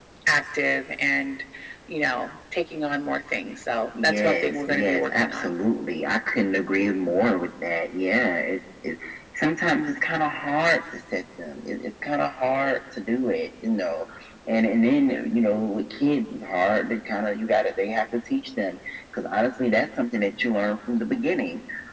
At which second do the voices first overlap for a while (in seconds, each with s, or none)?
3.9 s